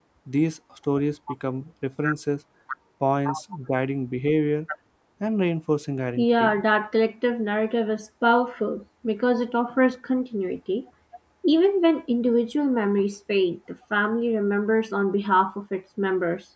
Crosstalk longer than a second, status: none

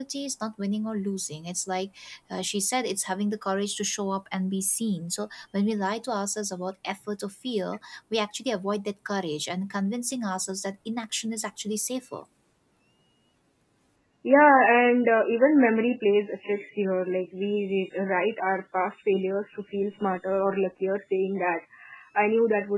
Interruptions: none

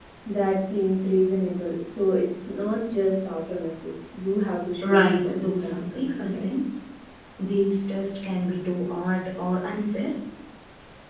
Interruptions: present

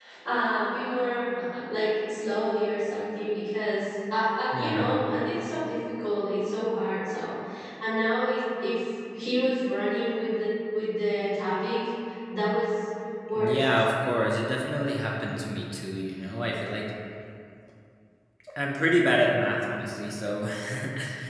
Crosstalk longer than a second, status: none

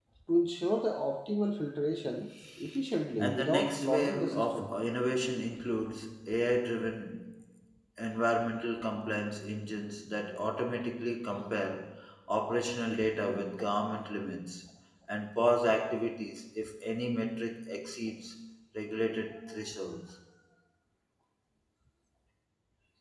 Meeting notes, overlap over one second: present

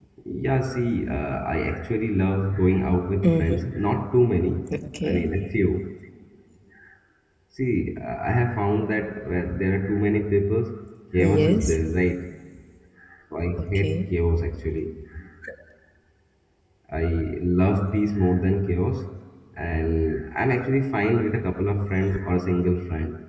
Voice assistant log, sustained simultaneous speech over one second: none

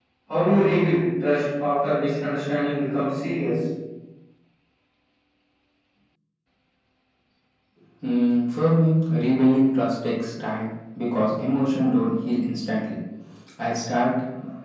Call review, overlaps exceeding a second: none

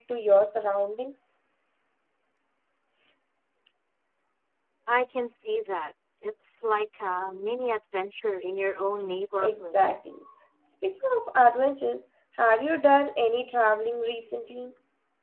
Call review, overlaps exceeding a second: none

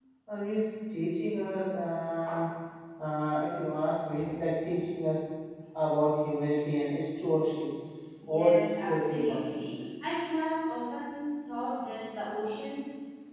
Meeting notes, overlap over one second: present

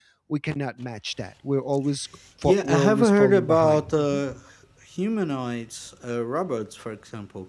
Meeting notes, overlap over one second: present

